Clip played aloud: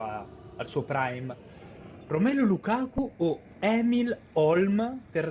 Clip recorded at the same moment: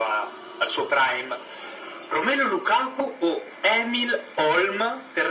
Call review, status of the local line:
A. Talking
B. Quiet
B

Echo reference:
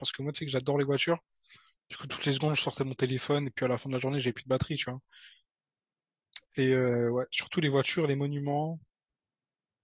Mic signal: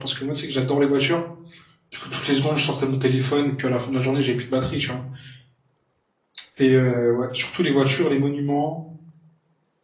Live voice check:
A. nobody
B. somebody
A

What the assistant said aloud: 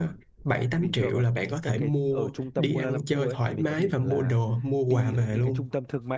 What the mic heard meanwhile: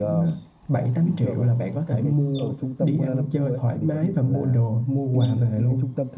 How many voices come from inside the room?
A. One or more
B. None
B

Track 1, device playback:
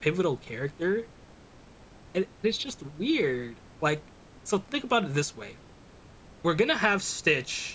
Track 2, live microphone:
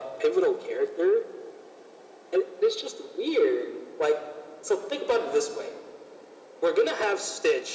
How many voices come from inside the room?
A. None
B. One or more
A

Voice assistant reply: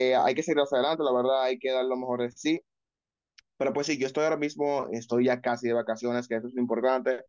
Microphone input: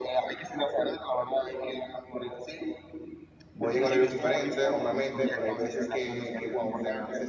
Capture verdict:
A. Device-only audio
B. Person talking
B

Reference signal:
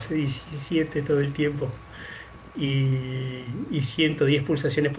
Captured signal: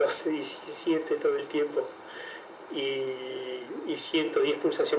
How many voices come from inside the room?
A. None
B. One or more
A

